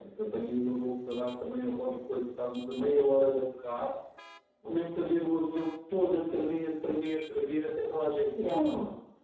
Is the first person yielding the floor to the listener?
No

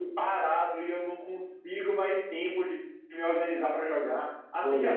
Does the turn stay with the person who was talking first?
Yes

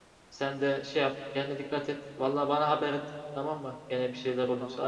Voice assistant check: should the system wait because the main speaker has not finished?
No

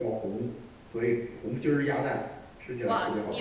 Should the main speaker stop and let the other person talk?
Yes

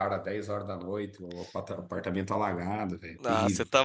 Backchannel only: No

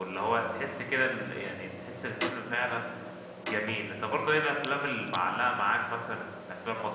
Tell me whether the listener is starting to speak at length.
No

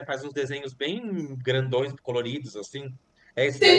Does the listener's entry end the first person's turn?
Yes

